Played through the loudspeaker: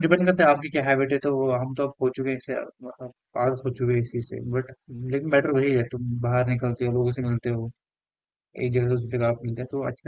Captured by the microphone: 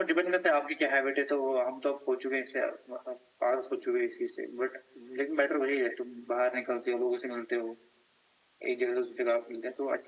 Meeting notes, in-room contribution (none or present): none